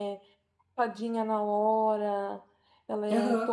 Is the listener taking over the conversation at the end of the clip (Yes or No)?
No